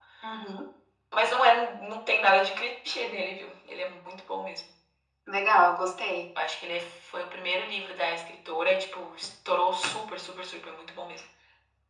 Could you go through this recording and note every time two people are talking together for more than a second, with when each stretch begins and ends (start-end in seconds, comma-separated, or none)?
none